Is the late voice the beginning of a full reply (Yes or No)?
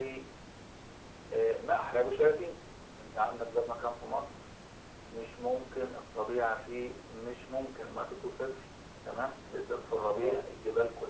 No